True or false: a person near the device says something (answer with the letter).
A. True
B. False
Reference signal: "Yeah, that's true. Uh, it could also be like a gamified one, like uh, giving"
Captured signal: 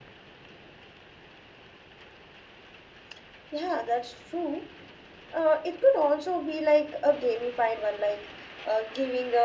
B